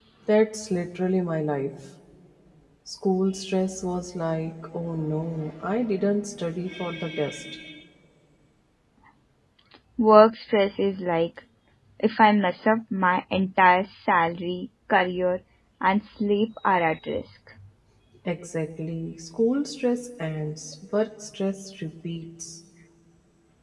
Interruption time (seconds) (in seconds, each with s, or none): none